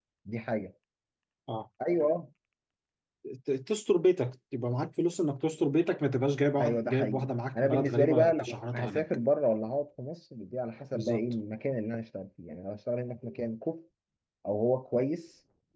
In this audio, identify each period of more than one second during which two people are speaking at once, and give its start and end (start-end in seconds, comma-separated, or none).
6.6-9.0